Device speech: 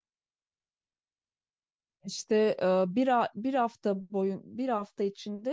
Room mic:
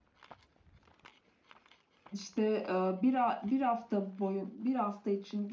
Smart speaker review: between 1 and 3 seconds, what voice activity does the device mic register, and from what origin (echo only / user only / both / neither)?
echo only